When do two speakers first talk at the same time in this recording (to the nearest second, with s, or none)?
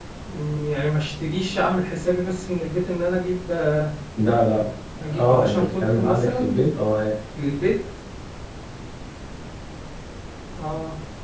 5 s